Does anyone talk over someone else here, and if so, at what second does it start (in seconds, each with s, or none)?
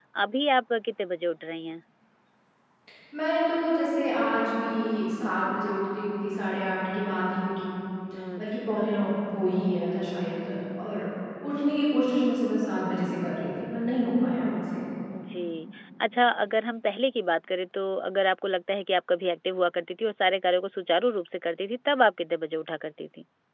none